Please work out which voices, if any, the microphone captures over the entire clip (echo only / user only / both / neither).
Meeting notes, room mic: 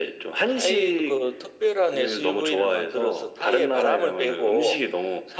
echo only